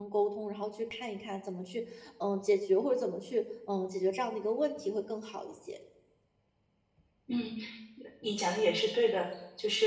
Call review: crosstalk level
none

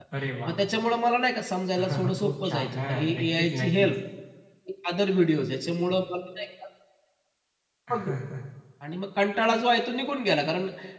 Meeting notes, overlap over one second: present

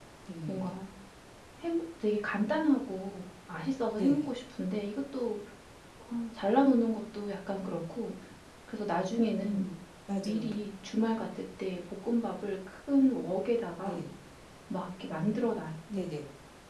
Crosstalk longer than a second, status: none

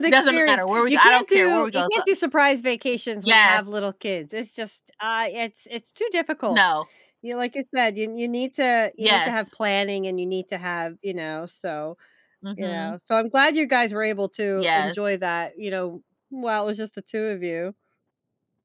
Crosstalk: present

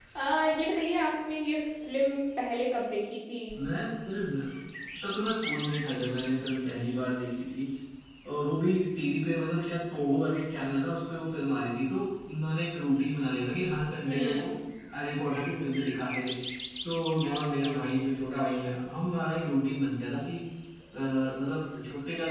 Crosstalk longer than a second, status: none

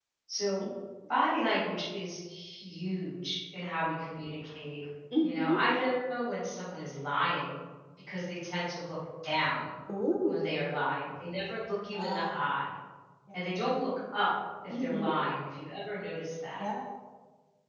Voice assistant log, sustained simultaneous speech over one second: none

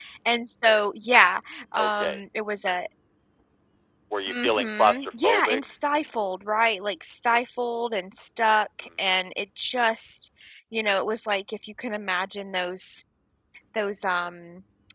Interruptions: present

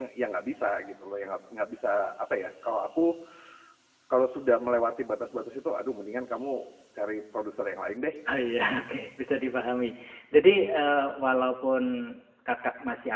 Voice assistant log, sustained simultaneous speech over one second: none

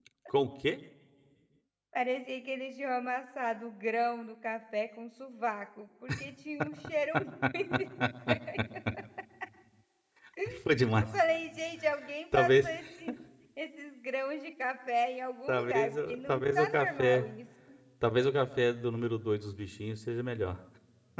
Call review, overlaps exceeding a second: present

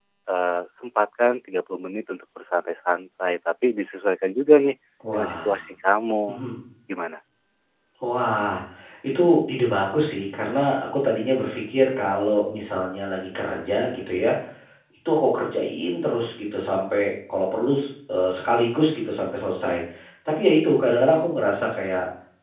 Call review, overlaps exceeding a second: none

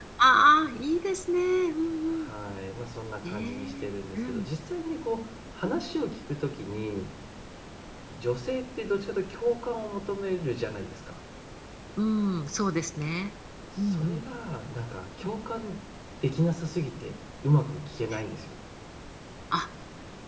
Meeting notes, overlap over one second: present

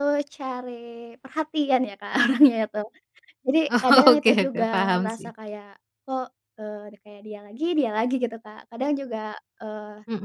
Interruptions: present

